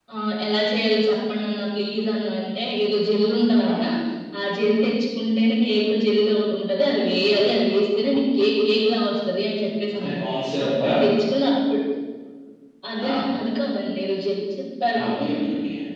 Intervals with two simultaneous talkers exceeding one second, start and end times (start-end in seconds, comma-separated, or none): none